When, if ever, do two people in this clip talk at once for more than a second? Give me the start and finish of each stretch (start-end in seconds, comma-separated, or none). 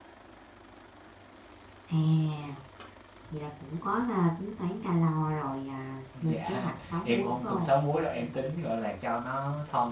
6.3-7.8